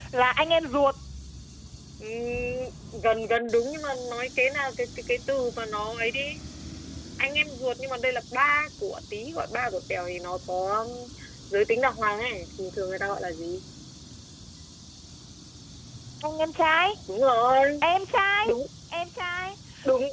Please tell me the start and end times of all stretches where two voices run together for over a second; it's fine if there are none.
none

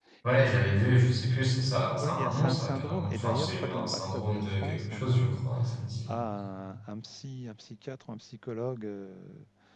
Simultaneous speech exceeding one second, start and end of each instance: 2.0-5.4

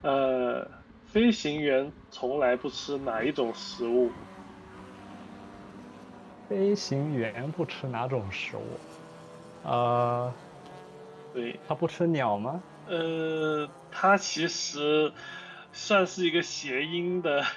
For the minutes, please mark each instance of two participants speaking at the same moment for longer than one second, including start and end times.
none

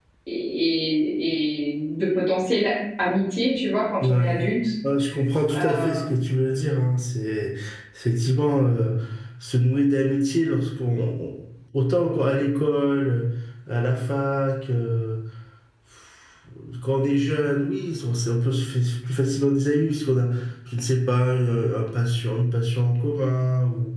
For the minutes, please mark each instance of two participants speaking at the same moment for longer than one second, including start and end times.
none

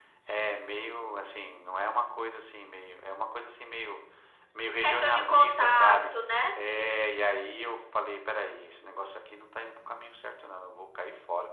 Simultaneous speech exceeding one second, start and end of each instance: 4.8-6.1

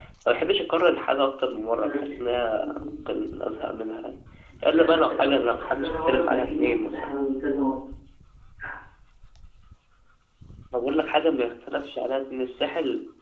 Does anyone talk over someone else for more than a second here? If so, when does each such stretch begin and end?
1.7-3.3, 4.7-7.1

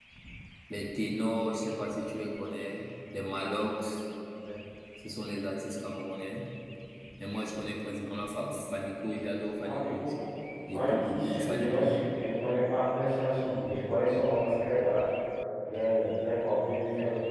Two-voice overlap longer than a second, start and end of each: 10.7-11.9

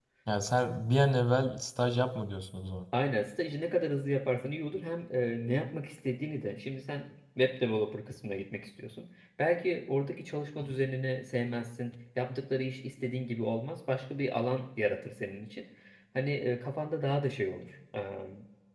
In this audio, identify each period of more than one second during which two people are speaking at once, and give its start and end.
none

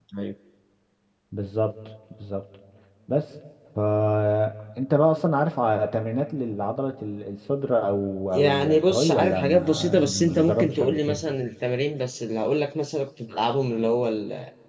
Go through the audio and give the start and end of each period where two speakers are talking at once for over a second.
8.3-11.2

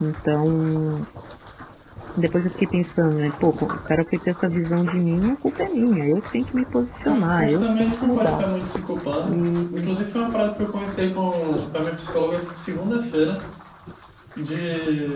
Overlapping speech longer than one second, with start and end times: 7.1-8.4

